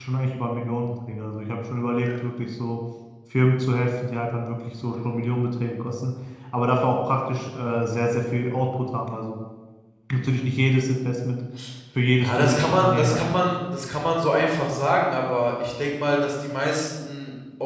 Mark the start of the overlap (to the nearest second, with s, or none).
12 s